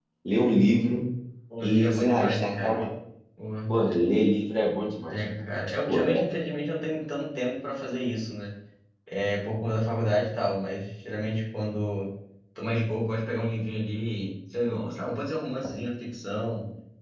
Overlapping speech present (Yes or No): Yes